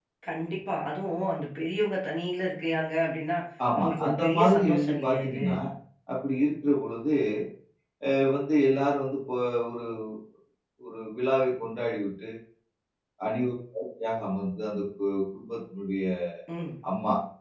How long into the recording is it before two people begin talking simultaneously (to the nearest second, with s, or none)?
4 s